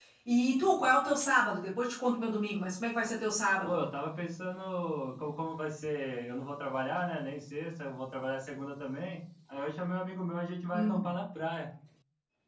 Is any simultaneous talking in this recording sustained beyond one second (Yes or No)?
No